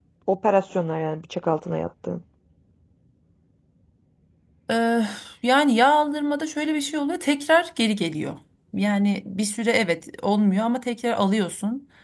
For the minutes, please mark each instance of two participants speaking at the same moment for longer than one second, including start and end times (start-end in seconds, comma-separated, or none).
none